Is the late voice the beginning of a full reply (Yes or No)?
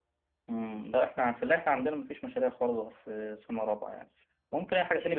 No